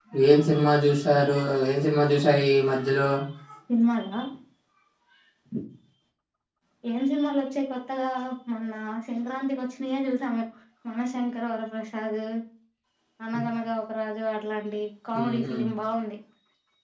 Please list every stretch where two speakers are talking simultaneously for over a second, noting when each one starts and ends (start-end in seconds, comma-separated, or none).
none